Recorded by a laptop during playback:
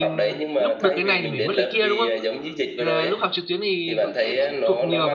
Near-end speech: present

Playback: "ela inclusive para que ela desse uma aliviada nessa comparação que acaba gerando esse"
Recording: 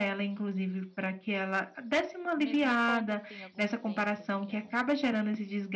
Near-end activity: present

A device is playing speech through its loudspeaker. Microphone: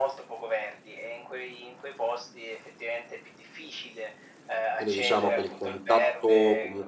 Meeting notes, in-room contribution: present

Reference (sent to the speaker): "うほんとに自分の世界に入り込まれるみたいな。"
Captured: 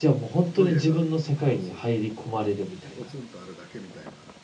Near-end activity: present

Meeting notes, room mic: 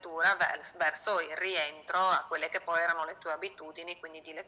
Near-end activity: none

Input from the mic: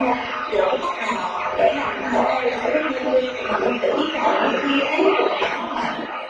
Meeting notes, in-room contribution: none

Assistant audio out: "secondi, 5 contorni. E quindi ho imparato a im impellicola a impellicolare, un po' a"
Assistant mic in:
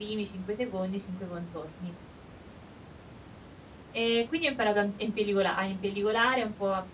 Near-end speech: none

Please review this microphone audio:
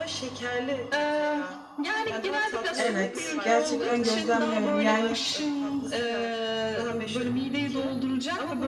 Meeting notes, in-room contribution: present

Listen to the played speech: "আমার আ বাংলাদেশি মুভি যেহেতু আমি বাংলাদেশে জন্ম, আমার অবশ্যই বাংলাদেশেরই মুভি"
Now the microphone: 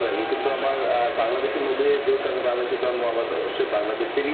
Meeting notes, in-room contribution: none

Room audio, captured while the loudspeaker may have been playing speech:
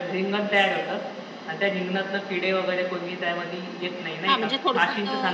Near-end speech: present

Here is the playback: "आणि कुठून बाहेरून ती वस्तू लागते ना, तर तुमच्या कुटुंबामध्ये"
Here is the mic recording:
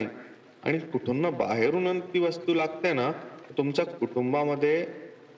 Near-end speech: none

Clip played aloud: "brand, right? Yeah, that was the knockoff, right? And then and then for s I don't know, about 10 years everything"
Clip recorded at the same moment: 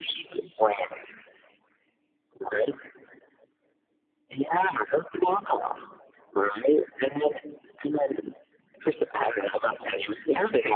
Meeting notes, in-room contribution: none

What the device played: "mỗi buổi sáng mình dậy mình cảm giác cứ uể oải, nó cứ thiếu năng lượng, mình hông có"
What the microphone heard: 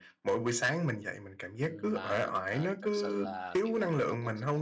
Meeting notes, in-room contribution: present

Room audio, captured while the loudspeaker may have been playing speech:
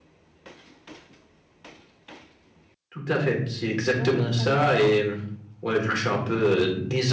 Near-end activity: present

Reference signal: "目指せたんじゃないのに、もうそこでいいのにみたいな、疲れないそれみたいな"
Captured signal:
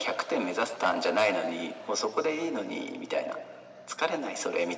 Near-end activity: none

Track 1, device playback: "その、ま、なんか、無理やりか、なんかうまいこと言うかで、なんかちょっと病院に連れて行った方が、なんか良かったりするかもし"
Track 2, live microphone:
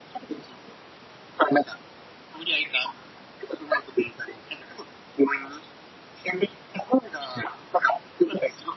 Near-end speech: none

